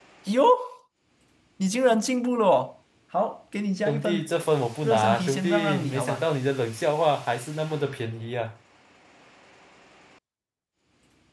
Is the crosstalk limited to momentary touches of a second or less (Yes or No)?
No